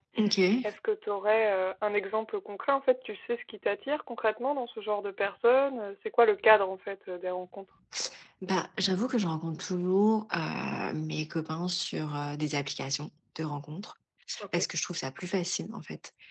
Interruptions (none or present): none